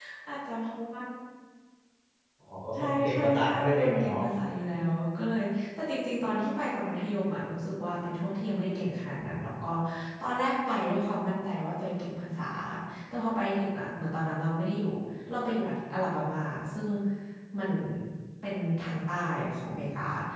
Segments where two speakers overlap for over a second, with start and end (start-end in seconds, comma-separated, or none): 2.8-4.2